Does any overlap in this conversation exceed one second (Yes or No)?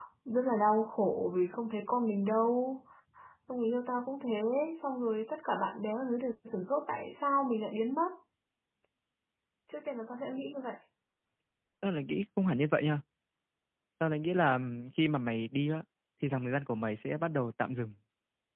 No